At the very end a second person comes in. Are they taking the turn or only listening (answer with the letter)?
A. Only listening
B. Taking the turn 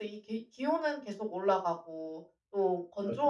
A